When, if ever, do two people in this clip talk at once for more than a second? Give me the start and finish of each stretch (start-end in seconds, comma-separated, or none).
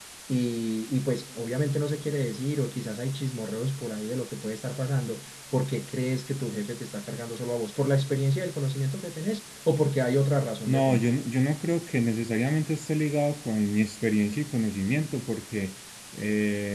none